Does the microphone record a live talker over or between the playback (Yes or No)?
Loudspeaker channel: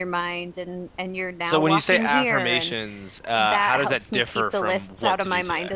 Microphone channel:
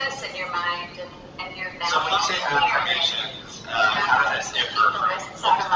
No